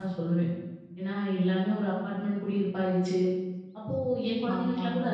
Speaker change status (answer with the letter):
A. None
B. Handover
A